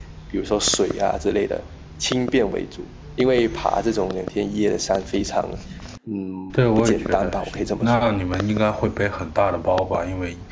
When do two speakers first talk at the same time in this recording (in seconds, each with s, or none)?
6.5 s